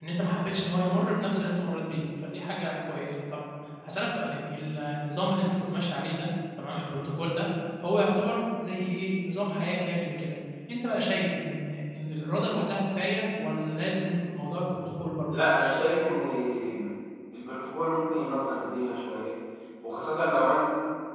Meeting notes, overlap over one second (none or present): none